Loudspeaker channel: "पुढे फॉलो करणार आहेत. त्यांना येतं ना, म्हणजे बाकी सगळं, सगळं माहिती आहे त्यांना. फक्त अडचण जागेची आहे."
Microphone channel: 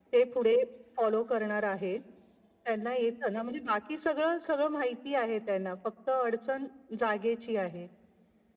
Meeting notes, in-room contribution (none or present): none